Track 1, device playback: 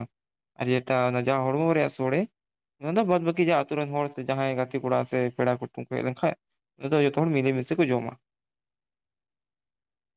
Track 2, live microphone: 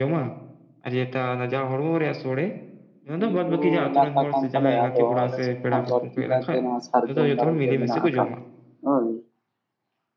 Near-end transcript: ᱵᱤᱨ ᱵᱩᱨᱩ ᱮᱞᱟᱠᱟ ᱠᱟᱱ ᱛᱟᱞᱮᱭᱟ ᱟᱫᱚ ᱟᱞᱮᱥᱮᱫ ᱦᱟᱸᱜ ᱵᱟᱹᱲᱛᱤ ᱠᱟᱭᱛᱮ ᱱᱚᱣᱟ ᱥᱟᱨᱡᱚᱢ ᱫᱟᱨᱮ ᱜᱮ ᱢᱮᱱᱟᱜ ᱟᱠᱟᱫ ᱦᱳᱭ᱾

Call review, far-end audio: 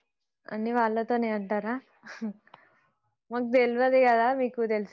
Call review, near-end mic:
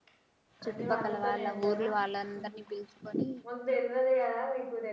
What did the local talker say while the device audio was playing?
చుట్టుపక్కల వాళ్ళ ఊర్లు వాళ్ళందరినీ పిలుచుకొని

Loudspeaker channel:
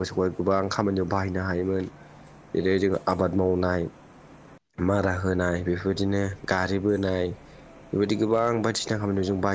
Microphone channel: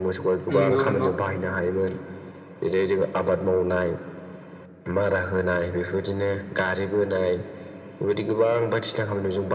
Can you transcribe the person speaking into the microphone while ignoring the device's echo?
नंगौ नंगौ

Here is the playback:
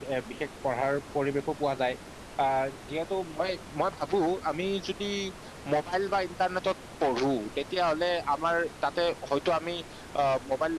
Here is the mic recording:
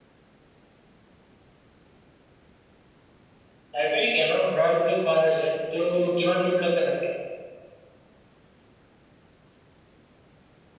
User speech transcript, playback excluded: লাইব্ৰেৰী জ্ঞানৰ ভঁৰাল বুলি কোৱা হৈছে। এইটো কিমান দূৰলৈকে সত্য?

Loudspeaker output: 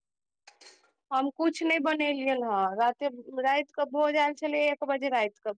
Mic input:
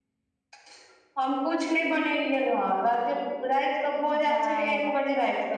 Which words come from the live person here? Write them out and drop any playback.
आ

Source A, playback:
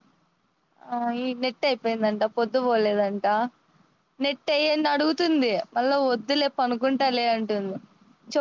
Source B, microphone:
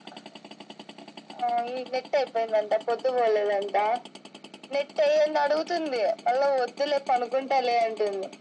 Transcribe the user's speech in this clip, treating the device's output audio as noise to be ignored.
none

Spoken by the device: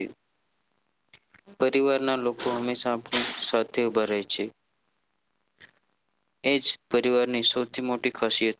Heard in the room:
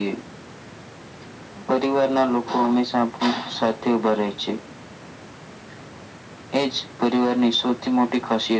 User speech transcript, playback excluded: none

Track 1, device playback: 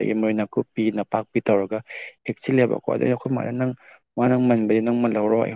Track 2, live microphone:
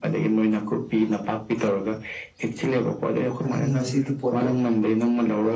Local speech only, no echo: ꯑꯗꯨꯒꯤ ꯉꯁꯤꯗꯤ ꯄꯣꯠꯇꯣ

